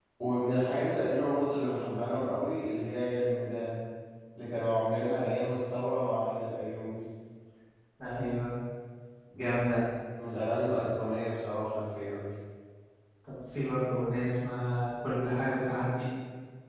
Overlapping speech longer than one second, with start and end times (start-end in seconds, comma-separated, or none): none